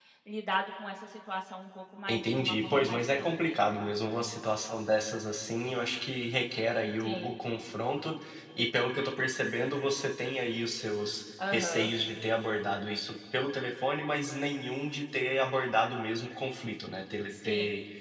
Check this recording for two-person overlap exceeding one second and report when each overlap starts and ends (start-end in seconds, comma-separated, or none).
2.1-3.6